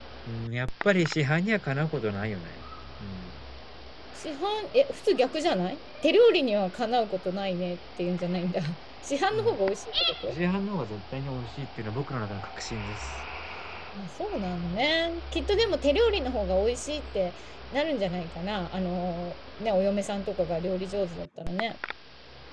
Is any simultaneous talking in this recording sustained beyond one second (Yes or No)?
No